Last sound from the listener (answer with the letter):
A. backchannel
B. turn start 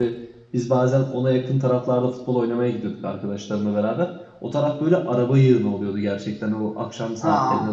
A